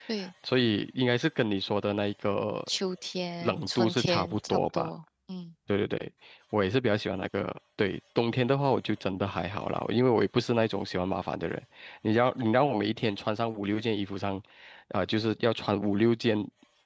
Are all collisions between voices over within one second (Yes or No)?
No